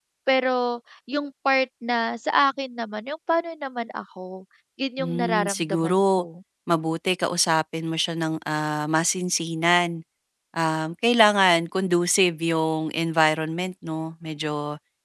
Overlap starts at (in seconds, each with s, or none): 5.0 s